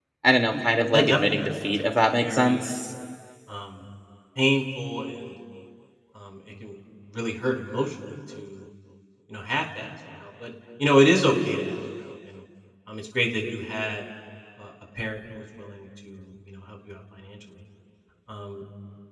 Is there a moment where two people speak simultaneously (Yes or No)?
Yes